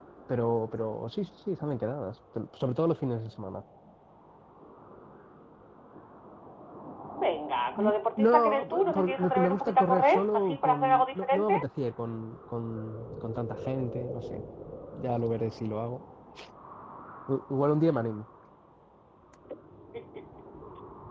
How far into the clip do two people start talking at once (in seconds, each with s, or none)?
7.8 s